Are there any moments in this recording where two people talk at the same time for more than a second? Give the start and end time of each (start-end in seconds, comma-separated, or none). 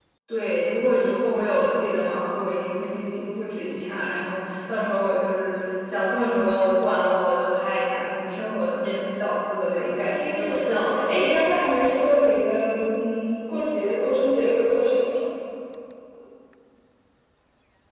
10.1-11.5